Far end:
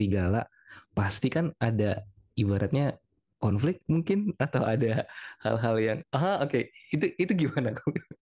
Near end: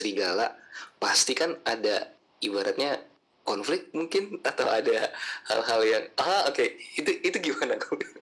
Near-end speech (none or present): none